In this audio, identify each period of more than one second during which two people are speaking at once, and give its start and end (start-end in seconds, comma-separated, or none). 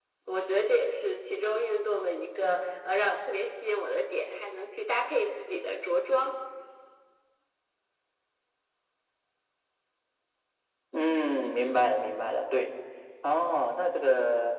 none